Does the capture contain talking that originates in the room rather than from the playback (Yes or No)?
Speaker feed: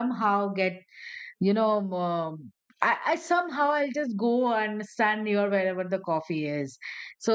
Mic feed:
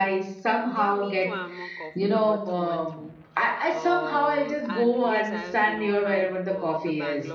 Yes